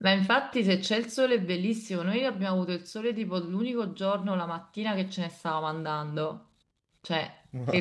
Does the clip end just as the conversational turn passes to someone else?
No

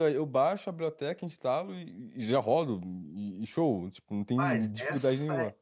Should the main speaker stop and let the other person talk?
Yes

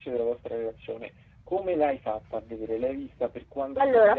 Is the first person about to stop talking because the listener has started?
Yes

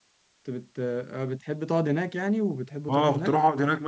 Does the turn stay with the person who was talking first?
No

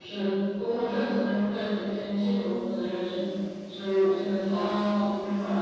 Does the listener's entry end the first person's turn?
No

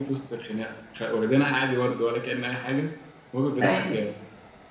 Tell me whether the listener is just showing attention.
Yes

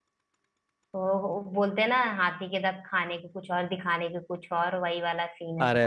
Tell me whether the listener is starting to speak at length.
Yes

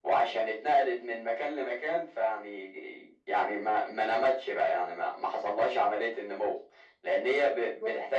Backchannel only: Yes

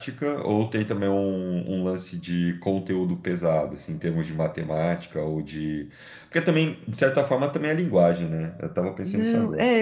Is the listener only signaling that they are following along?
No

